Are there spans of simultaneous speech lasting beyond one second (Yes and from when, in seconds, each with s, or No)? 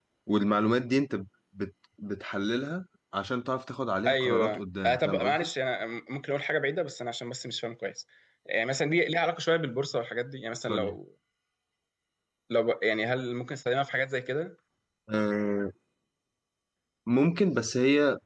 Yes, from 4.0 s